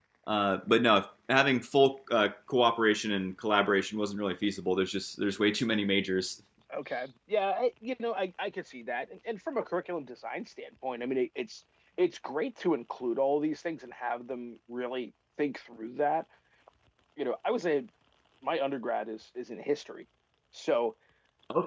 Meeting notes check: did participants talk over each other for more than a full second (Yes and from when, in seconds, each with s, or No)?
No